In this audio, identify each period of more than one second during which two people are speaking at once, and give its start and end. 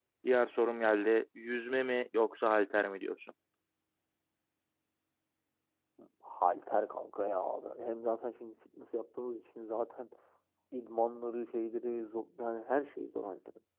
none

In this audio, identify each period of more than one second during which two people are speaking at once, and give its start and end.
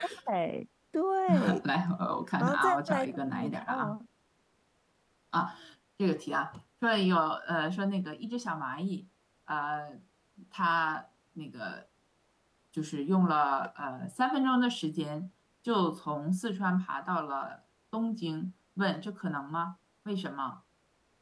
2.4-4.0

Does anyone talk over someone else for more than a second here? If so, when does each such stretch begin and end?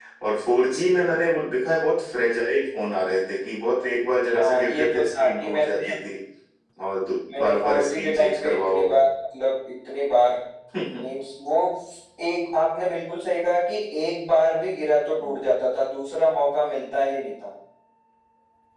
4.3-5.9, 7.4-8.8

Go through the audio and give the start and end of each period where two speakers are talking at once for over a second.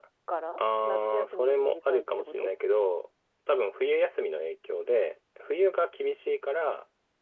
0.6-2.5

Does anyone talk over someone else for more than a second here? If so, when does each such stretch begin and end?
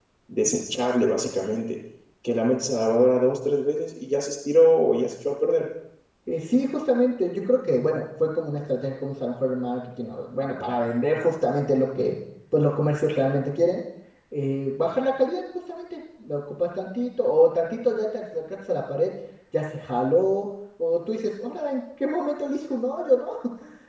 none

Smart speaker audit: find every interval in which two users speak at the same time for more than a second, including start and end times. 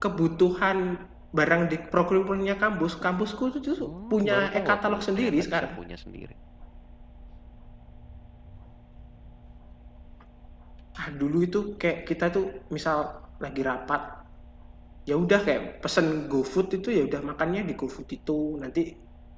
4.1-5.7

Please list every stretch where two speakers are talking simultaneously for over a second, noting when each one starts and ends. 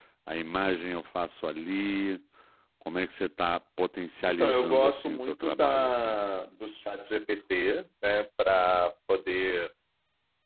4.3-6.1

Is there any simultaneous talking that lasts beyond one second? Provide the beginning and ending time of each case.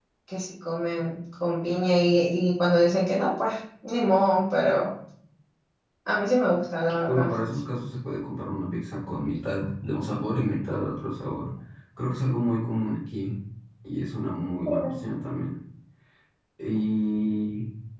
none

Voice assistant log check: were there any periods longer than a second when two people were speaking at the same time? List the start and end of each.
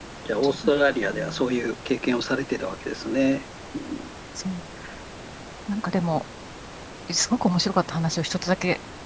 none

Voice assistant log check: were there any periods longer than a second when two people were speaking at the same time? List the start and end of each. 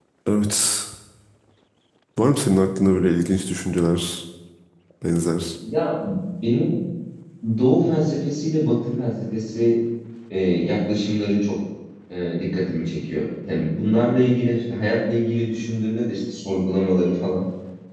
none

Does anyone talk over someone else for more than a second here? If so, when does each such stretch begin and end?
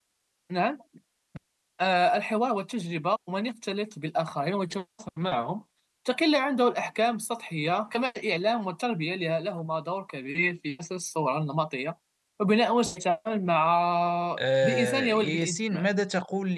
14.6-15.9

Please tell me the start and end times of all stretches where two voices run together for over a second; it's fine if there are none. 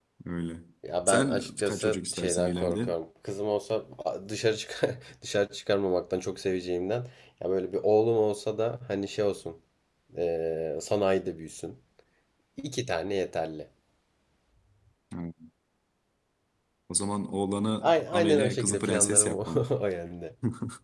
1.1-2.9, 17.8-19.7

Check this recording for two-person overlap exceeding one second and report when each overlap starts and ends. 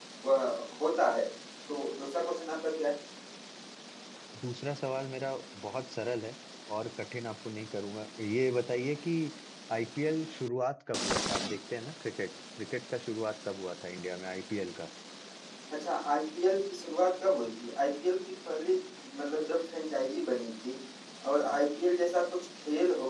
none

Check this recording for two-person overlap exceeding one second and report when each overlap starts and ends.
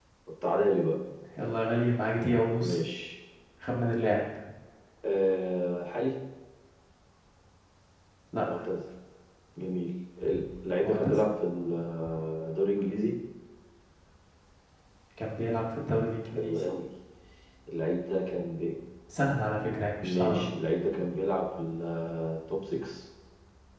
none

